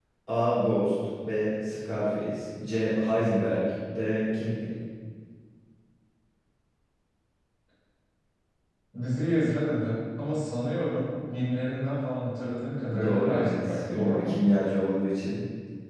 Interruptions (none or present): present